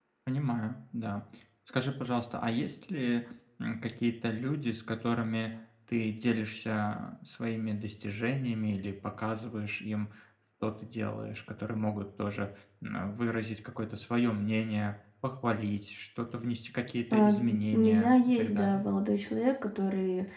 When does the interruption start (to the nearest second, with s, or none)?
17 s